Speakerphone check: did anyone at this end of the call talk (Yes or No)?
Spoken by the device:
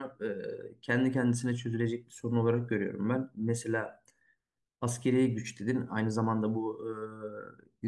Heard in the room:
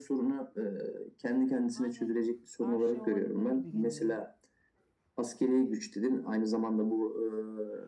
Yes